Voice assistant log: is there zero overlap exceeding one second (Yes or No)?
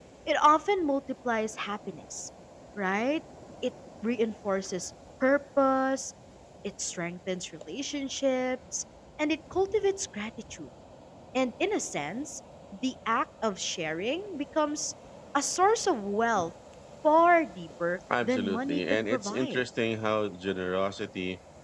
No